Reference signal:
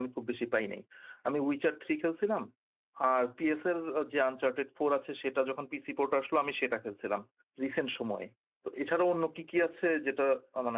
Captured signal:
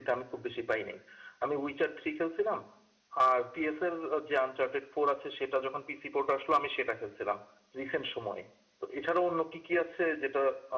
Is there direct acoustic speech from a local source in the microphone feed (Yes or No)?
No